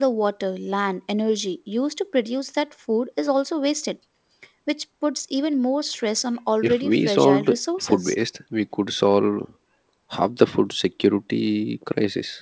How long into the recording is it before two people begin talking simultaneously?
7 s

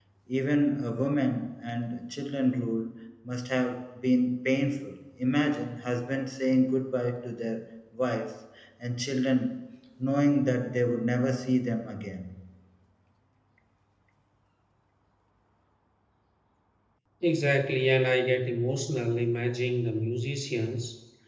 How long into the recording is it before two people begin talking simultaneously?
none

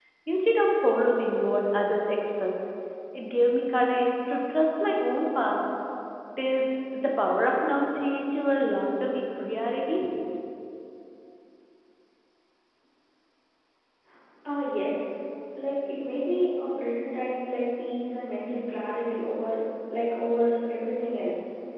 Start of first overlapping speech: none

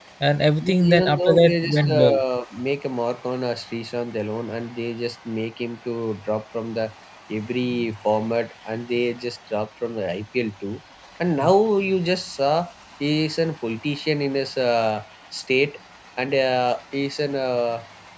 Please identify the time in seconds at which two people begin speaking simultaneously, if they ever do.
1 s

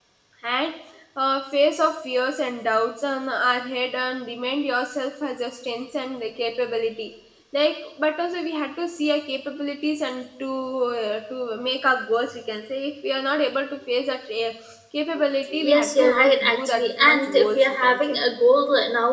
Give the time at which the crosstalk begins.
16 s

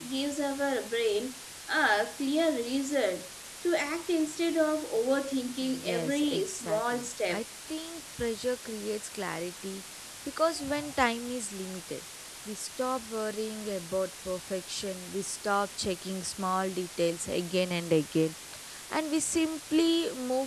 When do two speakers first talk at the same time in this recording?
6 s

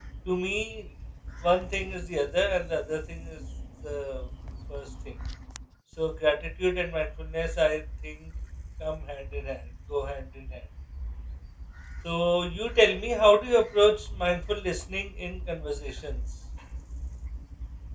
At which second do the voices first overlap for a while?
none

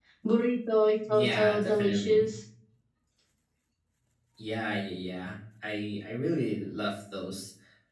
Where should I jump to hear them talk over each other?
1 s

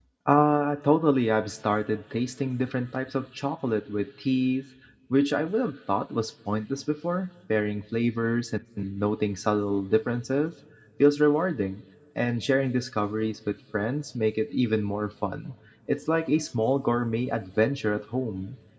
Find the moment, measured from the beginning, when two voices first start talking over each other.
none

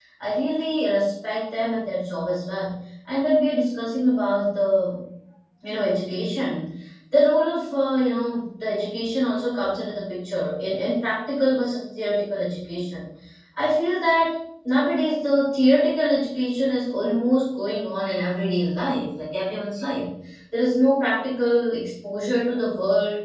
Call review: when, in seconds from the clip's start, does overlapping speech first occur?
none

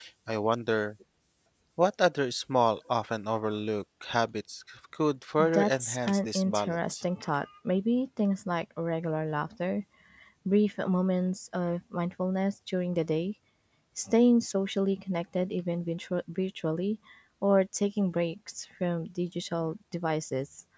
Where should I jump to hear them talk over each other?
5 s

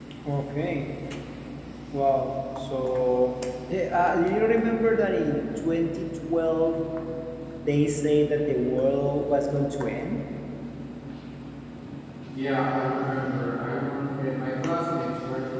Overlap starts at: none

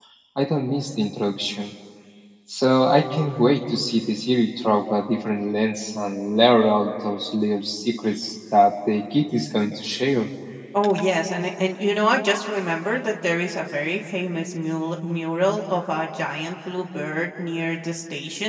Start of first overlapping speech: none

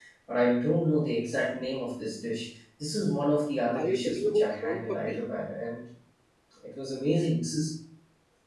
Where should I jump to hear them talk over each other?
4 s

